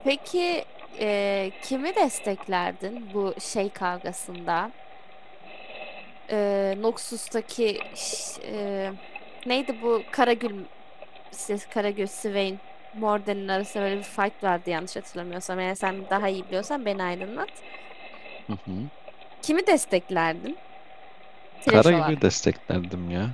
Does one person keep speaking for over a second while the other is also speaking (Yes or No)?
No